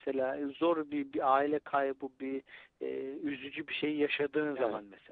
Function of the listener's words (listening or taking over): taking over